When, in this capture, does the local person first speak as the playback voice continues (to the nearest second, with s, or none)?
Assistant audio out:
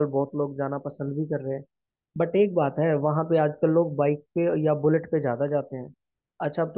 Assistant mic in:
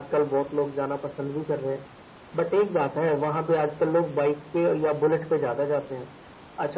none